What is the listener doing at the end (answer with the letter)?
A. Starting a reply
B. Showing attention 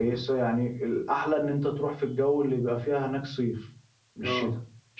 B